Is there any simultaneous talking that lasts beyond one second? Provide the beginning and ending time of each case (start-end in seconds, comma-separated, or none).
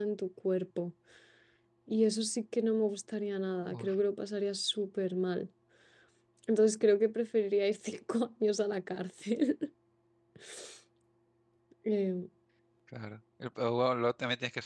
none